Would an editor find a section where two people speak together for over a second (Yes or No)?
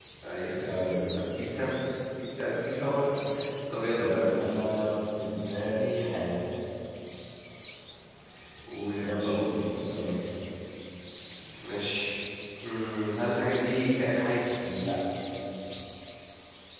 No